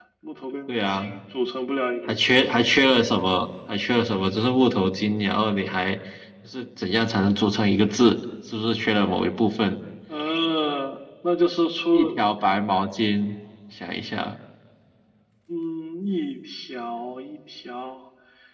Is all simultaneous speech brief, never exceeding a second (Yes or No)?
Yes